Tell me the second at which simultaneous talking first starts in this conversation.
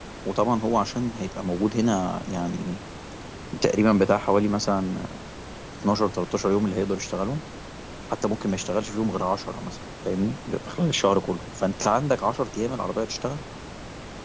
none

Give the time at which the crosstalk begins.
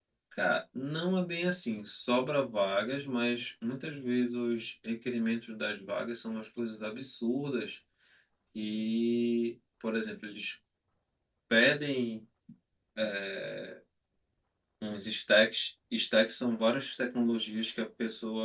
none

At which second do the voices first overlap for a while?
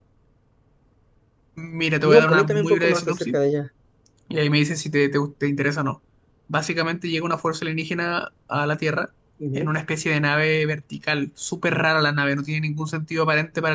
2.1 s

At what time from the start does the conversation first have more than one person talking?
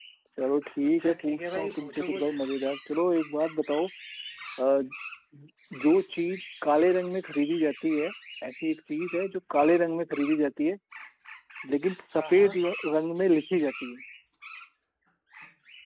0.9 s

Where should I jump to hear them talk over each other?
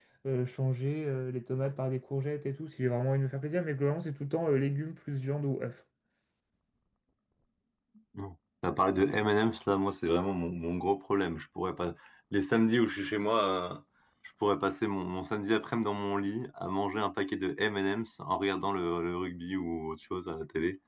none

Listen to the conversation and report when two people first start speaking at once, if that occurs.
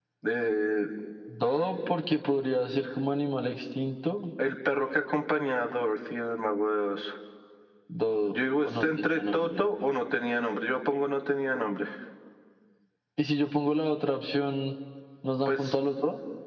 8.3 s

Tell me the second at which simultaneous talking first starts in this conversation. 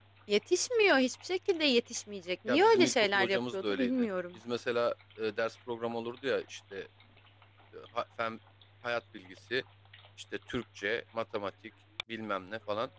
2.5 s

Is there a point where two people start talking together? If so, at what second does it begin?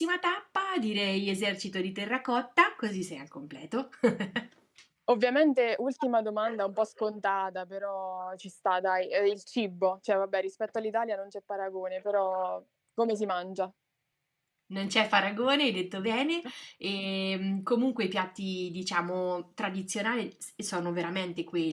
none

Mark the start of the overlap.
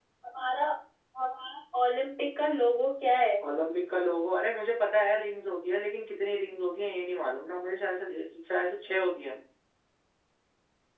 none

